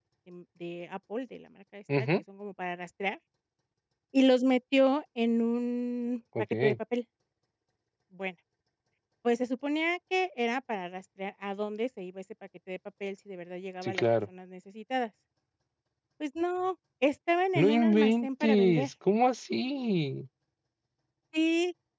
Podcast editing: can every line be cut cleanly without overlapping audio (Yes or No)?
No